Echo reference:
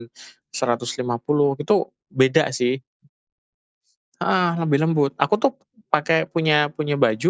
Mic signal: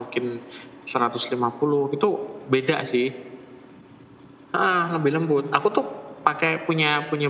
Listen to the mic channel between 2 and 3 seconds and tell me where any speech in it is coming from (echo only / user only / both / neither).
echo only